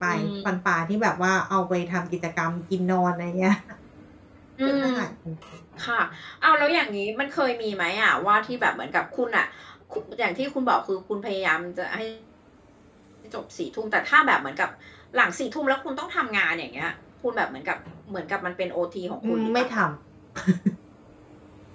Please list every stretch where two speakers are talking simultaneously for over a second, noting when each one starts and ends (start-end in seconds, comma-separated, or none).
none